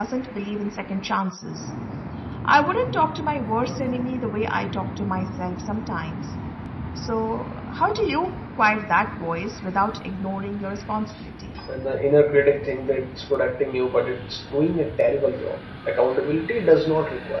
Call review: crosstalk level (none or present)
none